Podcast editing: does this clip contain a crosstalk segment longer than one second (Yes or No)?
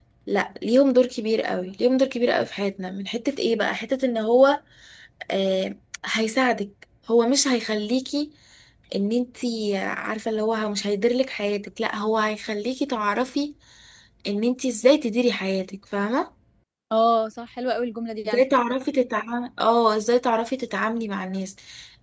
No